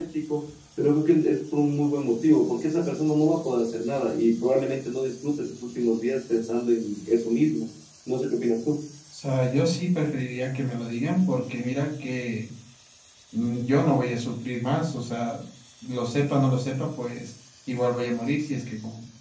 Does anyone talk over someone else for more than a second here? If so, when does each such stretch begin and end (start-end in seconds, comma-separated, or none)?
none